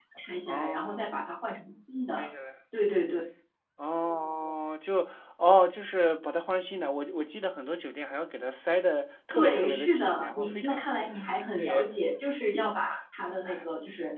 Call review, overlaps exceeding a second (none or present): present